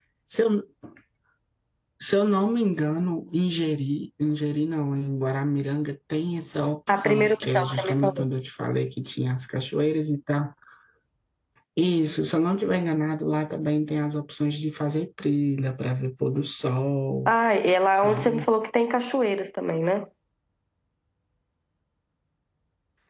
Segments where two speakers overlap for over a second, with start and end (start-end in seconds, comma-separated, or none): 6.9-8.2